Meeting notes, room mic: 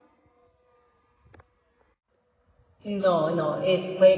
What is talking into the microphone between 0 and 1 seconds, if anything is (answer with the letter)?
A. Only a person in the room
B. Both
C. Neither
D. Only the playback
C